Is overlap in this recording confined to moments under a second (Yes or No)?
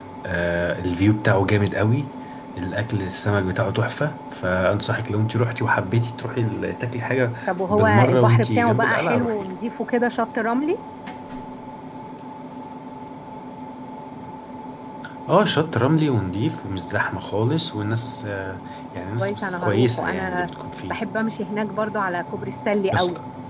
No